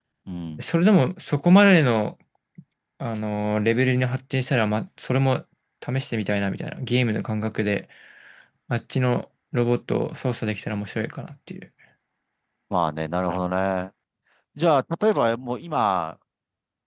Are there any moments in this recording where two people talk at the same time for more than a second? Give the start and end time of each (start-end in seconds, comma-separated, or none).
none